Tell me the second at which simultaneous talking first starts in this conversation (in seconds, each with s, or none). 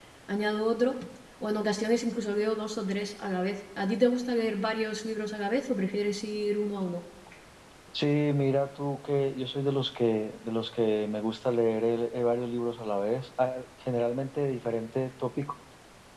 none